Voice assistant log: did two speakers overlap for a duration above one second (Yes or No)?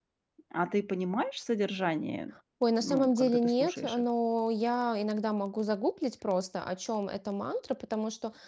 Yes